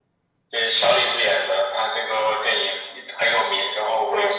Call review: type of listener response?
listening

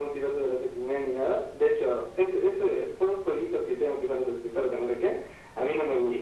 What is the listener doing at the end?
listening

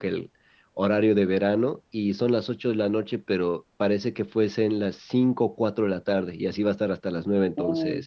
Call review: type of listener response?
taking over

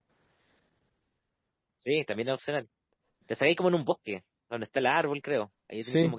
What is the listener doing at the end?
taking over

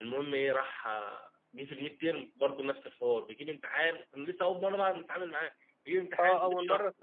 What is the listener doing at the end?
taking over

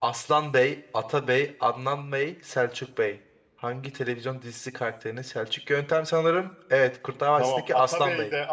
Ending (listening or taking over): taking over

